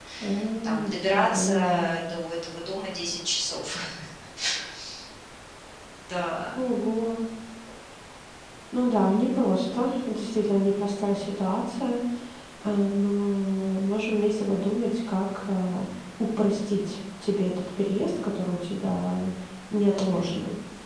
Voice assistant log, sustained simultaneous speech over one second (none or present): present